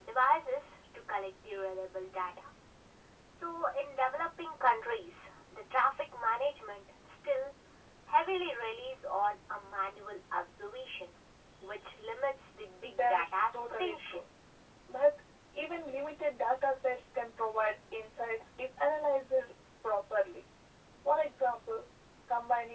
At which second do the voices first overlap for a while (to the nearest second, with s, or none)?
13 s